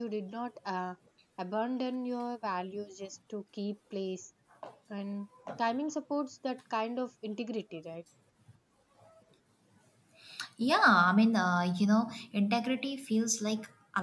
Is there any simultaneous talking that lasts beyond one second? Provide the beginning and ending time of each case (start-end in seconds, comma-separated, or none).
none